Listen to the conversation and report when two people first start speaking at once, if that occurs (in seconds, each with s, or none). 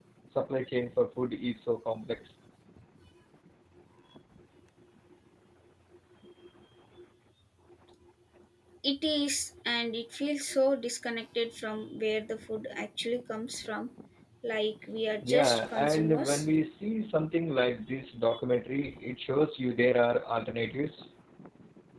15.2 s